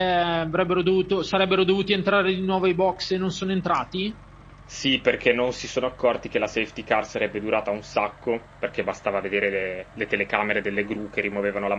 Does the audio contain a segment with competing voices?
No

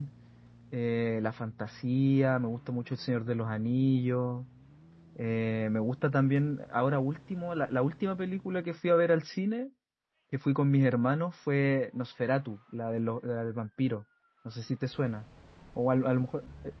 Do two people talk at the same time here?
No

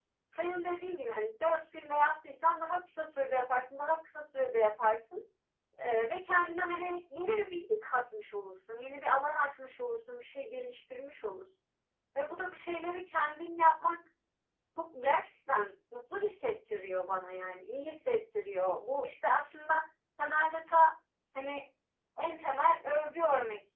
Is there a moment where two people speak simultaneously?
No

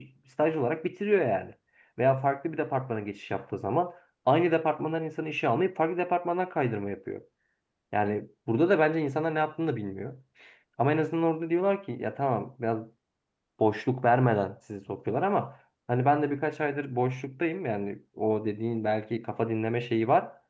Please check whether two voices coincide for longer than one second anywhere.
No

